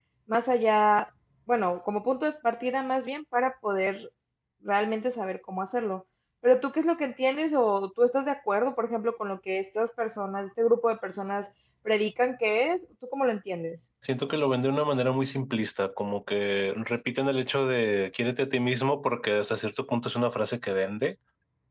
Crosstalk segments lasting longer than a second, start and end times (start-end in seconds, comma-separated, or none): none